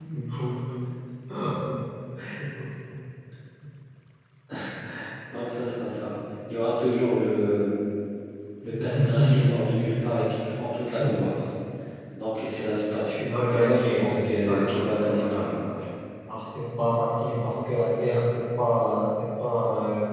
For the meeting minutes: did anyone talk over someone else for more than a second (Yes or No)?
Yes